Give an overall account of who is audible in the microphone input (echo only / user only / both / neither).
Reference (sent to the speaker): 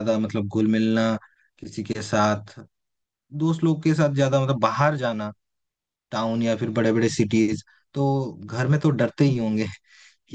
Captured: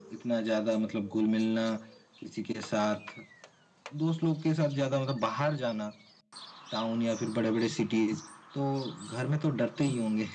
echo only